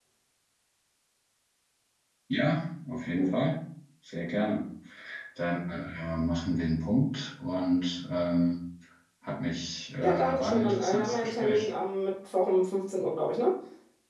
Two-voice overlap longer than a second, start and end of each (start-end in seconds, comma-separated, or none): 10.0-11.7